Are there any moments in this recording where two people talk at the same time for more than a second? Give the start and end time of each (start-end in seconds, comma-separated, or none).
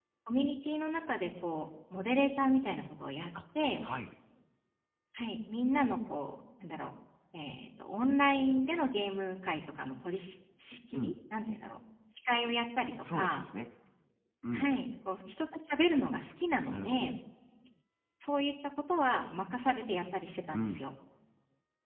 none